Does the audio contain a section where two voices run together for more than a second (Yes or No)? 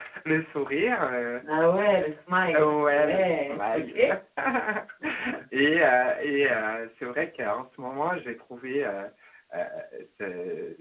Yes